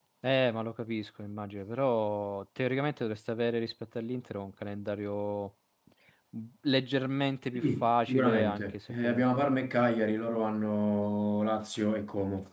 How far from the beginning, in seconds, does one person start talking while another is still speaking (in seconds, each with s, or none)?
7.6 s